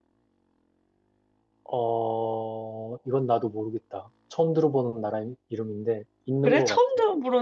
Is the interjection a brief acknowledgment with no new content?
No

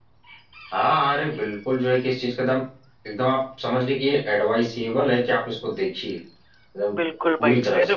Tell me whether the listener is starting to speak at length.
Yes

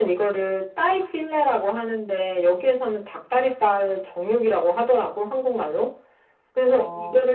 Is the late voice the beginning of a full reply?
No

